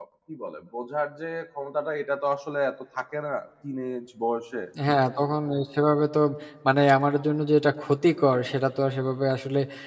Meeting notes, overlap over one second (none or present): none